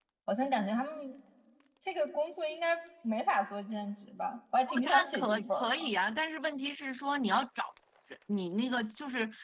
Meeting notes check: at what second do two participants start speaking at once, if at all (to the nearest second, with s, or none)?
5 s